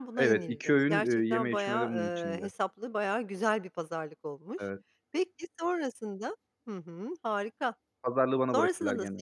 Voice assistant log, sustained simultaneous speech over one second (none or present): present